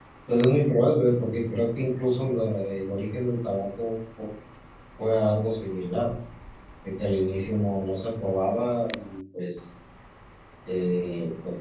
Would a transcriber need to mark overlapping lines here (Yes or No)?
No